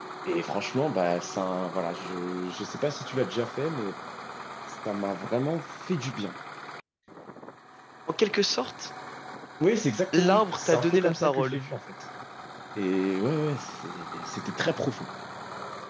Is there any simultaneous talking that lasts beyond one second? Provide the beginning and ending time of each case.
10.1-11.6

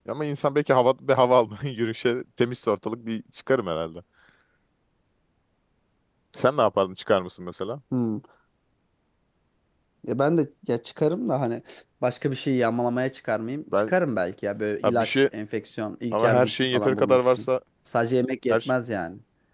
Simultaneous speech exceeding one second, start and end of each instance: 16.1-17.5

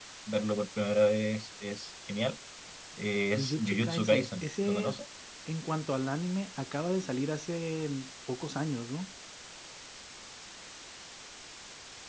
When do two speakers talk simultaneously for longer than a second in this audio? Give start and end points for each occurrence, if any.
3.3-4.9

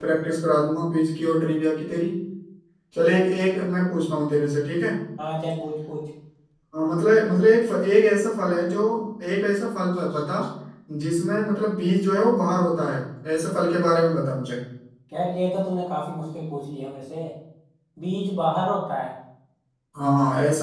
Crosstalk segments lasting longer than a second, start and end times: none

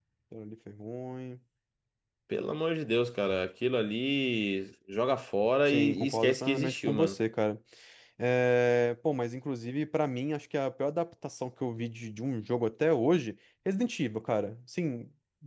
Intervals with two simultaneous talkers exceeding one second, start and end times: 5.7-7.2

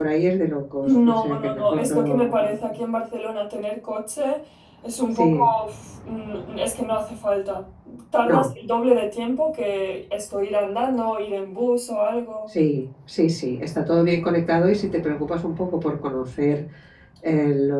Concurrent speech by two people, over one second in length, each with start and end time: 0.8-2.6

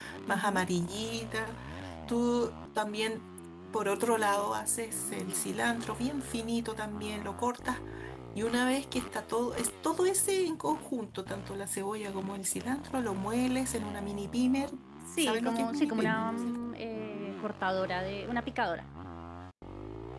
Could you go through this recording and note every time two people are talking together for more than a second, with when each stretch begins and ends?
15.2-16.6

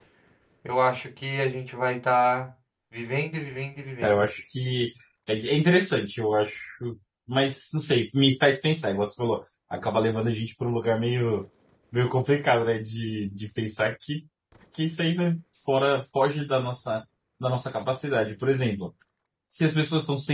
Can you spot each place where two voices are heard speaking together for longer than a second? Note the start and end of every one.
none

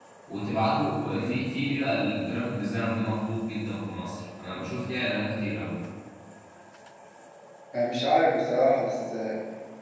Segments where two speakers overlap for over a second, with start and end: none

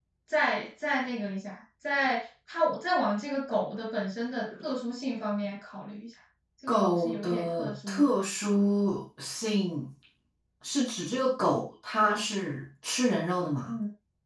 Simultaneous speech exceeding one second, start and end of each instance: 6.7-8.1

